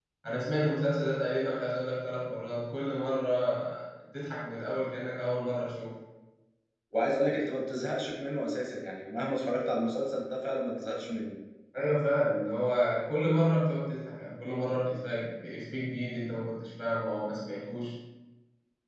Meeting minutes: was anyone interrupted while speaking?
No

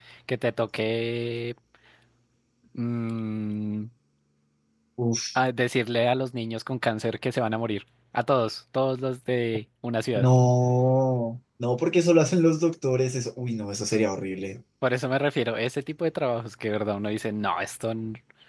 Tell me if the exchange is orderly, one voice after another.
Yes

